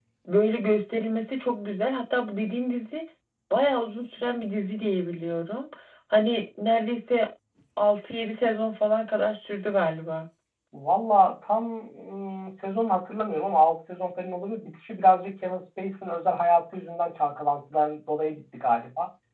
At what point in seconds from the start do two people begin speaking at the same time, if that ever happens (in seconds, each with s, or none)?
none